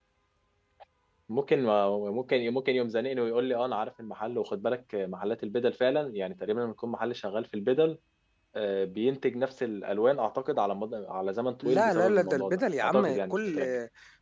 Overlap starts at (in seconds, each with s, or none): 11.6 s